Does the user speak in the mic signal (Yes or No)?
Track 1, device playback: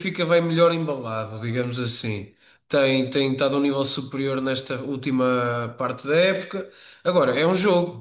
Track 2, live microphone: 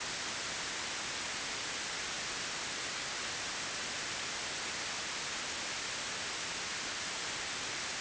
No